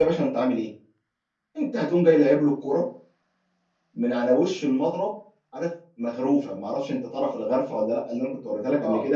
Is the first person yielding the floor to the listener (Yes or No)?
No